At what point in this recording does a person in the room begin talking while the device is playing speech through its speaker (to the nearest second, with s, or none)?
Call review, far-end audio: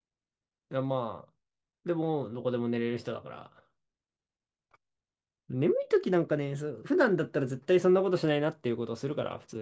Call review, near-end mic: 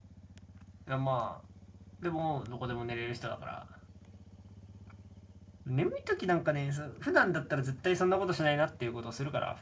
none